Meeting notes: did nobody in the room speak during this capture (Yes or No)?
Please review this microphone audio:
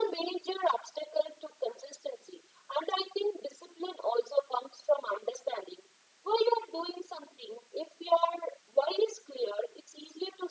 Yes